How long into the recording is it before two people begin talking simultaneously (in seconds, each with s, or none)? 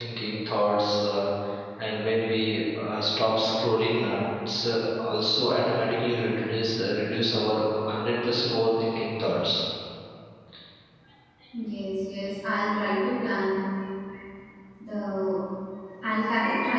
none